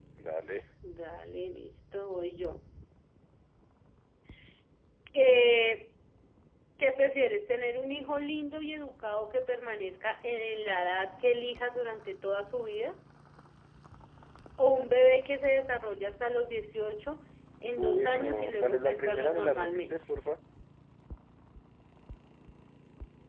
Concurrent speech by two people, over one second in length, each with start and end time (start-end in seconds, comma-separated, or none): 17.8-20.0